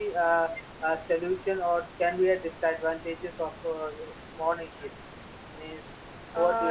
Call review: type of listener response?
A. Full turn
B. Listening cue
A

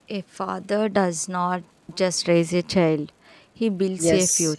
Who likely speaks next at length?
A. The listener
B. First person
A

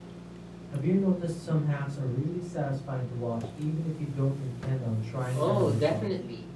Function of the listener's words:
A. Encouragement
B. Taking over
B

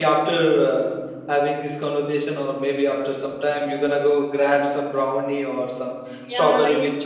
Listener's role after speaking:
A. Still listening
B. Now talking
B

